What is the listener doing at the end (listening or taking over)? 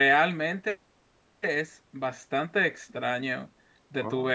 listening